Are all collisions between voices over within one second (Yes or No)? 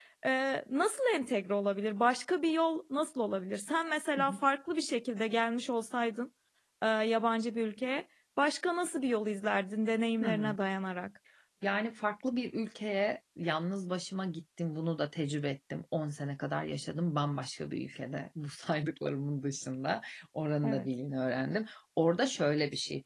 Yes